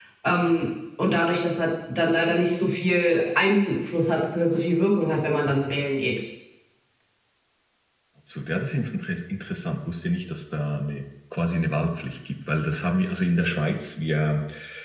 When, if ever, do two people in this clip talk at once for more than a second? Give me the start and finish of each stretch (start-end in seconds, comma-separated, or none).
none